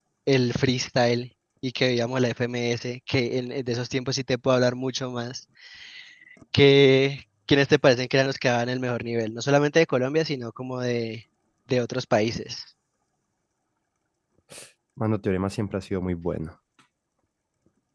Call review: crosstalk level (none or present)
none